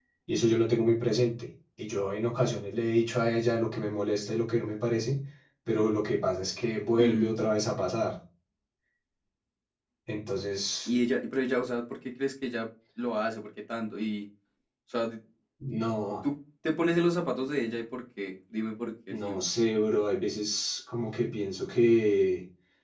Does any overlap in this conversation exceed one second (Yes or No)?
No